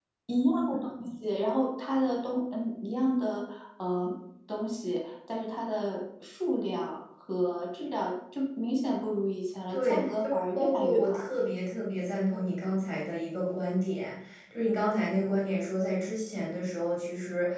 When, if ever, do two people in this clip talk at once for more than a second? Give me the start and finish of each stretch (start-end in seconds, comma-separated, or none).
9.7-11.2